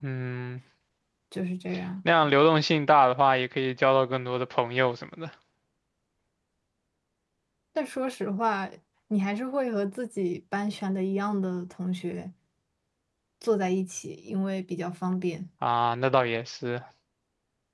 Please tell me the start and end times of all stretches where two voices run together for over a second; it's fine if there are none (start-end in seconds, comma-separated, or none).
none